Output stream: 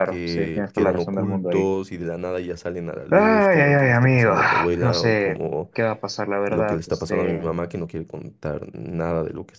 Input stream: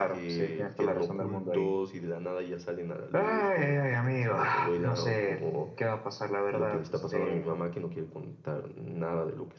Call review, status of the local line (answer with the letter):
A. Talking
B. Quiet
B